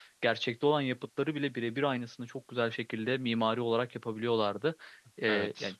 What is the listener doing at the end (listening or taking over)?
listening